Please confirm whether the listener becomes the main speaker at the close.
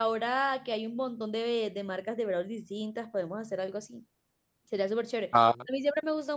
No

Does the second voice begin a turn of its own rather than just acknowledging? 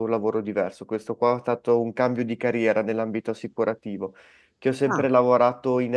No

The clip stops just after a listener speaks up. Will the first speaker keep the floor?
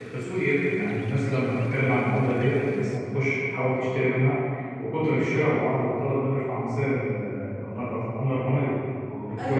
No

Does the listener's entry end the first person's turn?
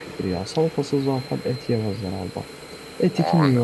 No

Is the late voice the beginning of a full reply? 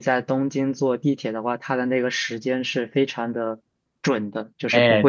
Yes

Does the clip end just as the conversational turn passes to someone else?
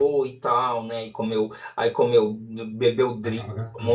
No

